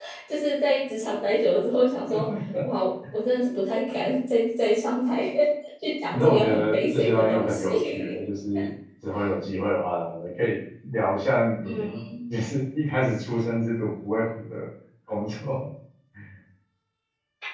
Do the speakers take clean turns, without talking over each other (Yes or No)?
No